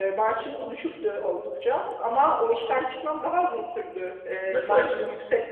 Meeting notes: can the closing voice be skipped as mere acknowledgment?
Yes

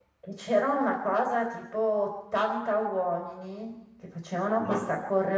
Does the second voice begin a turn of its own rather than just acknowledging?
No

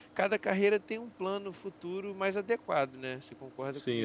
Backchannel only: No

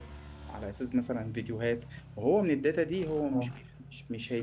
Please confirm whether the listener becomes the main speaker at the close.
No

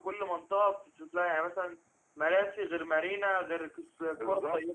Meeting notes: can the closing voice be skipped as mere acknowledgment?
No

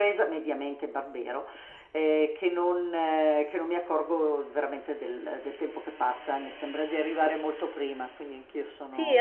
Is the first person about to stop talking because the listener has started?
Yes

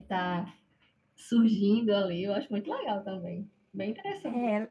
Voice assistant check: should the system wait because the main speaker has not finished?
No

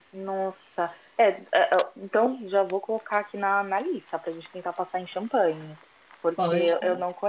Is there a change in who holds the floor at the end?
No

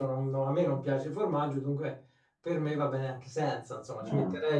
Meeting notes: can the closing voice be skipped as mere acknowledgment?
Yes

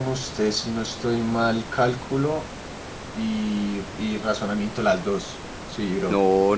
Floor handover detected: Yes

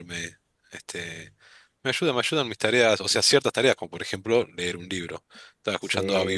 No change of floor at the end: No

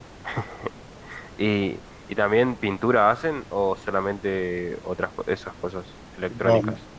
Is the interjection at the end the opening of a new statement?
Yes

